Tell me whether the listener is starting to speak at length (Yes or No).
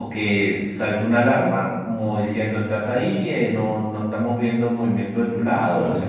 No